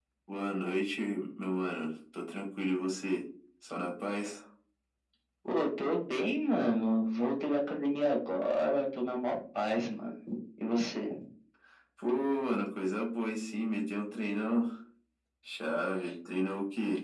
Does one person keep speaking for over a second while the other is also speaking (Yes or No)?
No